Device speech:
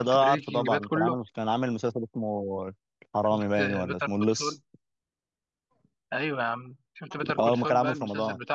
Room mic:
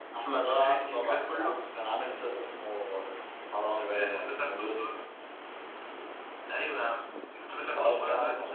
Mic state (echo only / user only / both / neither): echo only